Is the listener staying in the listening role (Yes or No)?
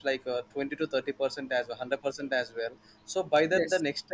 Yes